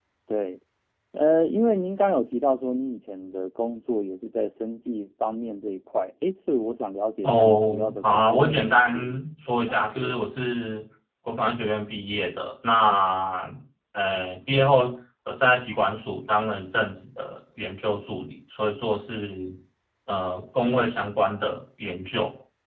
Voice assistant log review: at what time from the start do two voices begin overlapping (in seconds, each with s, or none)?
7.2 s